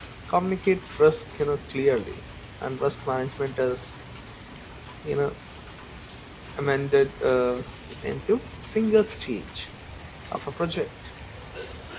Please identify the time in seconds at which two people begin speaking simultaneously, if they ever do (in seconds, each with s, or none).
none